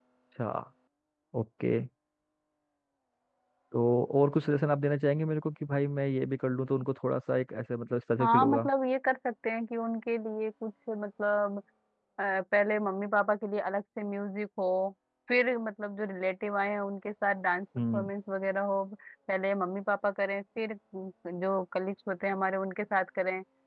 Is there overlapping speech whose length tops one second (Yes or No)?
No